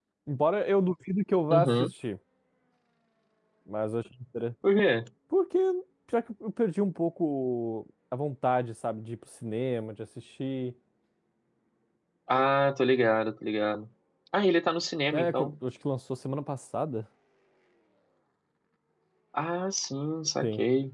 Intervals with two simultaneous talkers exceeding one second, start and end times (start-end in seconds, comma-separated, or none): none